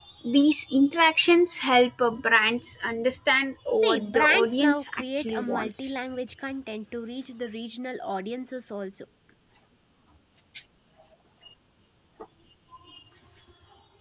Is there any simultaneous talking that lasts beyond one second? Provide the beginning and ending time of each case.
3.8-6.0

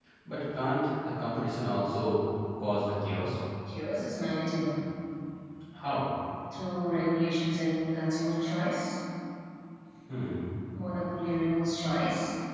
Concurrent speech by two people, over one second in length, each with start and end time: none

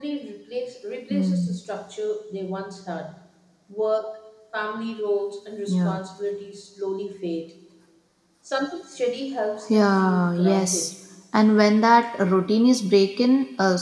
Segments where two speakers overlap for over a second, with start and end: 9.7-10.9

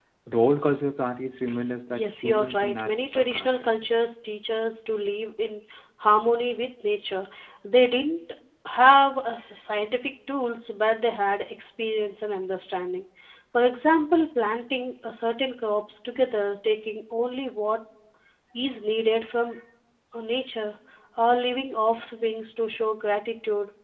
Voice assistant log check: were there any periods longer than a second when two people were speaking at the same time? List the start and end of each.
1.9-3.7

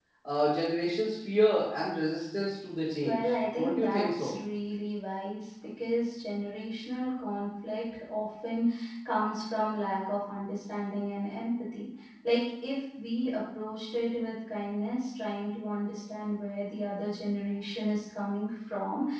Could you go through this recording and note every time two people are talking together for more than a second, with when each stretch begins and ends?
3.0-4.3

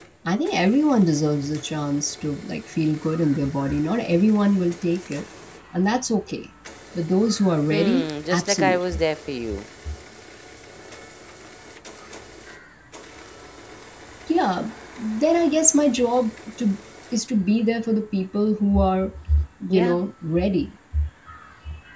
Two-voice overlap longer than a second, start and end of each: 7.7-9.0

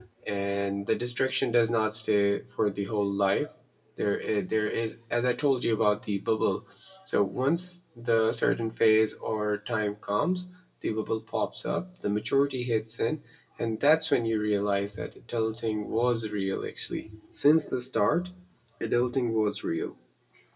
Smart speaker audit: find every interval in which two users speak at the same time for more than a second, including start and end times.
none

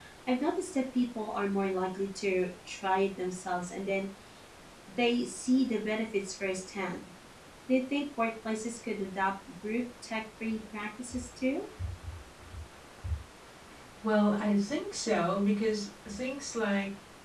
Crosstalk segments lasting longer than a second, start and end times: none

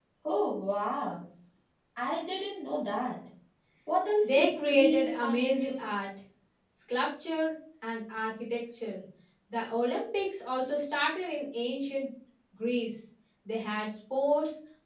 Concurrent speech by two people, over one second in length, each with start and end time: 4.2-5.8

